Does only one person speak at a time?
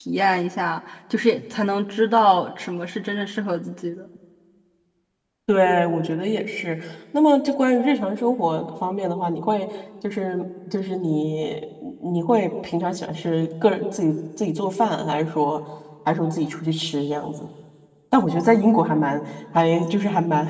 Yes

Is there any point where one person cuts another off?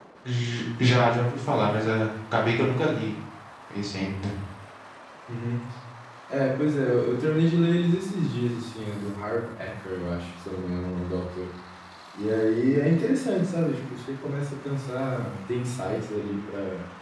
No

